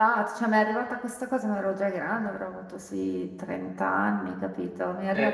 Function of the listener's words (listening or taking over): listening